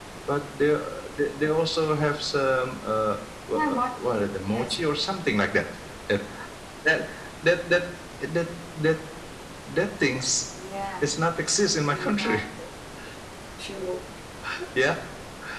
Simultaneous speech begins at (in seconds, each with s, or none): 3.5 s